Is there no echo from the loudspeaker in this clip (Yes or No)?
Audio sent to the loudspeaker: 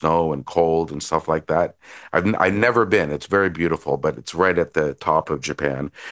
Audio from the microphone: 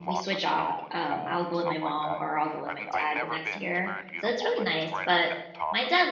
No